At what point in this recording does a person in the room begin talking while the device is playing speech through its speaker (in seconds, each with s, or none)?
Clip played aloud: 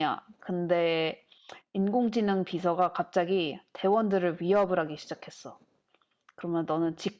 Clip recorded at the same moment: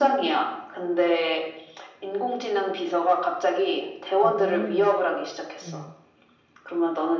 4.2 s